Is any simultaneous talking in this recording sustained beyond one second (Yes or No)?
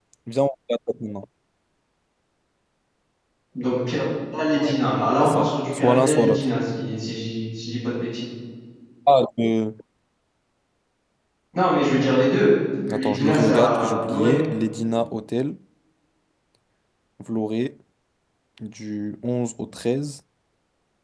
Yes